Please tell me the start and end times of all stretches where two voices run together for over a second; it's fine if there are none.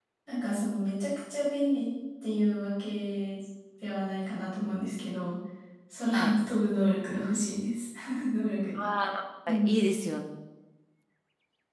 none

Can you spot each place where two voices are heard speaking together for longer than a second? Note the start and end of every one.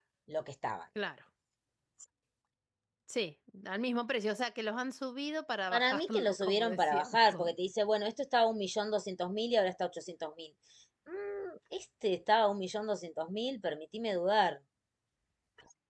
5.7-7.5

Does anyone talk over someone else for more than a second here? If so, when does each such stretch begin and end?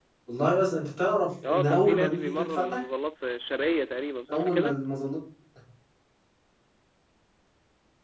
1.5-2.8

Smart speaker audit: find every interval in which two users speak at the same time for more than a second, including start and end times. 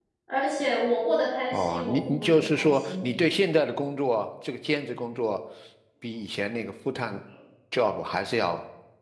1.5-3.1

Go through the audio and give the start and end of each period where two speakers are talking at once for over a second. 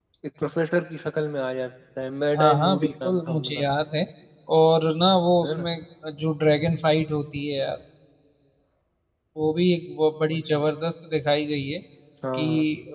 2.4-3.6

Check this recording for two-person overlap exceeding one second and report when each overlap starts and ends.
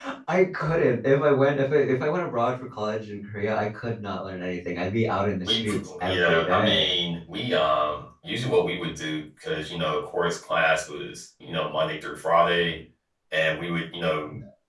5.5-6.9

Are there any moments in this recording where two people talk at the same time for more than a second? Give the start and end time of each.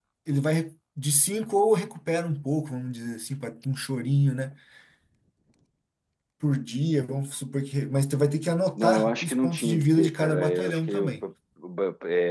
8.8-11.1

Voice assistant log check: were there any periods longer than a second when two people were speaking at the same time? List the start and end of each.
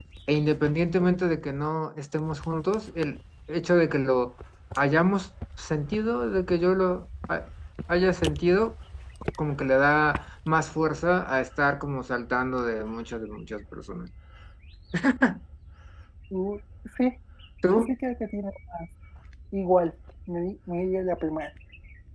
none

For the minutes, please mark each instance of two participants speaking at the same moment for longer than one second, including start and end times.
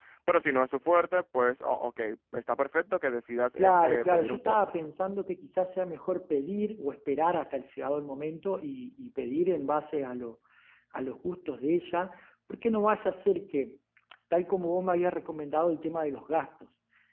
3.6-4.8

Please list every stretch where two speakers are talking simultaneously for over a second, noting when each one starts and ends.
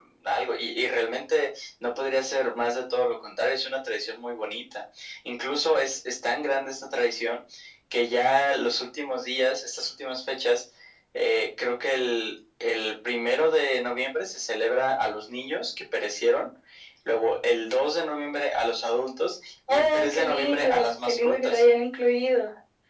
19.7-21.6

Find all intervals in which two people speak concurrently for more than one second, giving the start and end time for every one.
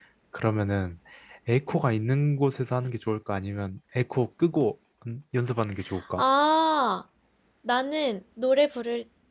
none

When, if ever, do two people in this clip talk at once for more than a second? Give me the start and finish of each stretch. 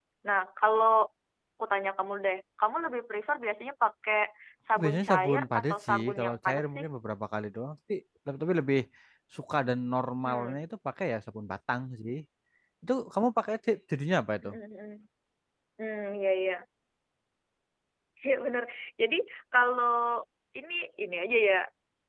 4.8-6.8

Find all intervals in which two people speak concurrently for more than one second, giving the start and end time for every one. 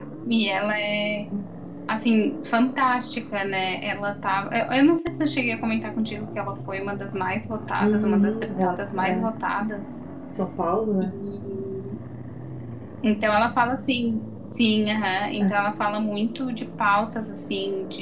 7.8-9.3

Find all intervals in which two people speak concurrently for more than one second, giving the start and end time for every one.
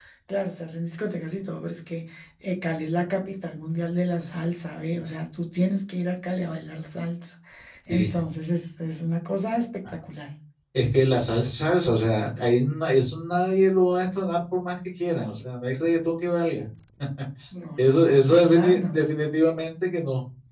17.8-19.0

